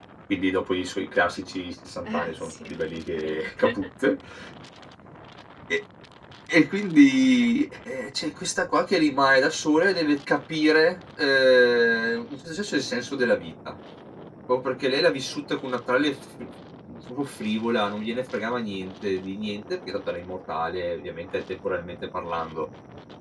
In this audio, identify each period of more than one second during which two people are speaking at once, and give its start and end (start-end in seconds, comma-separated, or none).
2.0-3.7